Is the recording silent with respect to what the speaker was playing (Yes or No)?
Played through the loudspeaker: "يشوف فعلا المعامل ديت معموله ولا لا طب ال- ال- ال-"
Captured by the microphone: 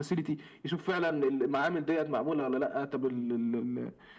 No